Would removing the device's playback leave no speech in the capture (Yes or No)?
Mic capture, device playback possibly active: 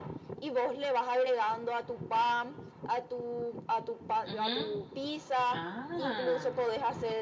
No